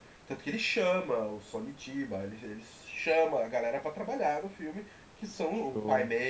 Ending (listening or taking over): listening